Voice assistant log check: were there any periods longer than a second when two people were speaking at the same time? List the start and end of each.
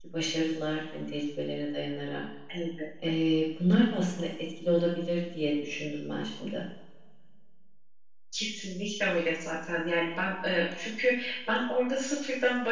none

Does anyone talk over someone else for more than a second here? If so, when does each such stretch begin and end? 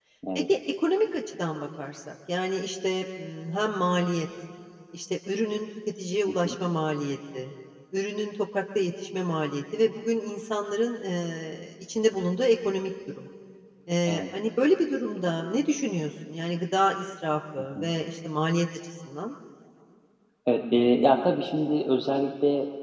none

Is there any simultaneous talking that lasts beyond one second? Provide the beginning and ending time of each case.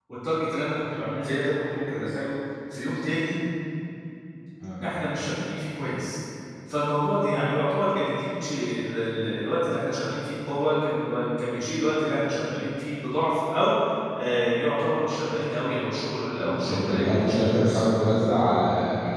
16.4-17.8

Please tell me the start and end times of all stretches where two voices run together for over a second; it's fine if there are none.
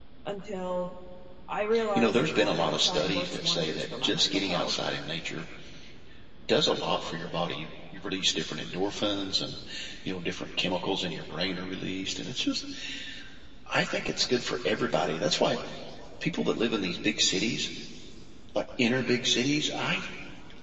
1.9-4.7

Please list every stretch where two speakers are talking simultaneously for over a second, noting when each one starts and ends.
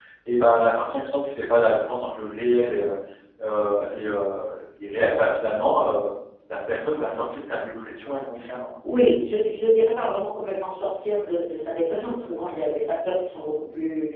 none

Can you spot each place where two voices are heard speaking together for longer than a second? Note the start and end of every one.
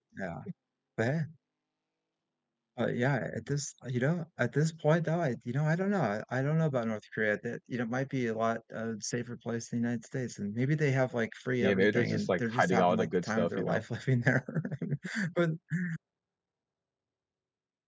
11.6-13.8

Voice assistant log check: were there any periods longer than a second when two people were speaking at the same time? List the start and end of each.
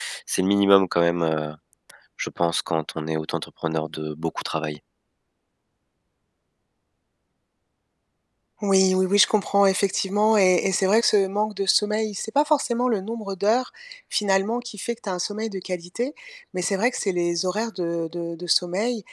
none

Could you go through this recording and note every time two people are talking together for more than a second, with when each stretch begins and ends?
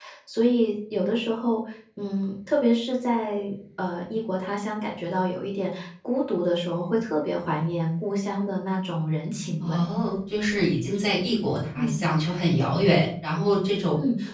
none

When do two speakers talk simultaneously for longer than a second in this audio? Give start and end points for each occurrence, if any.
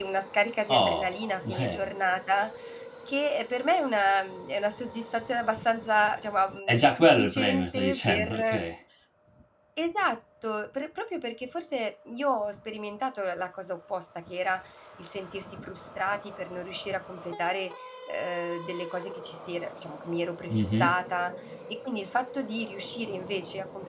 0.7-1.9, 6.7-8.7

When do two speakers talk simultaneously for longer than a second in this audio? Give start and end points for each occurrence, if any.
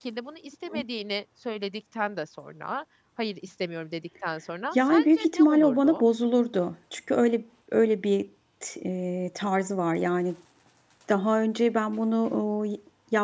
4.7-6.0

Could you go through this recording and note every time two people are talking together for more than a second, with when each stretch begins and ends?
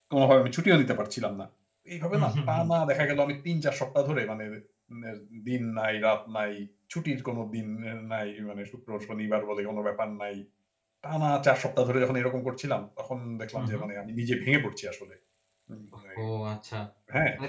none

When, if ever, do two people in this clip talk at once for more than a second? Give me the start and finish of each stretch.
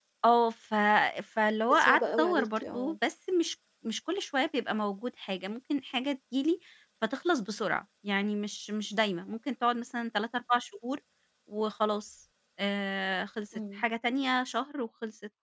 1.7-3.0

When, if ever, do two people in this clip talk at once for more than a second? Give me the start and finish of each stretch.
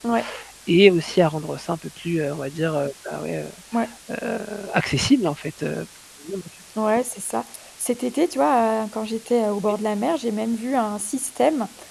none

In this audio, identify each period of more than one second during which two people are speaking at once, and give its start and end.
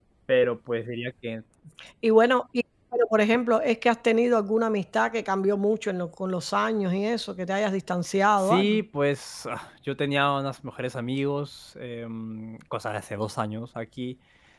none

